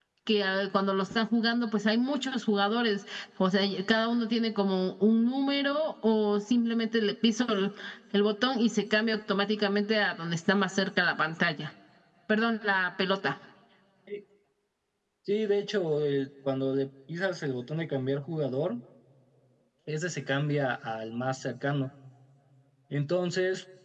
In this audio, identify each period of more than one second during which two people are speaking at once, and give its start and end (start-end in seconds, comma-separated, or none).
none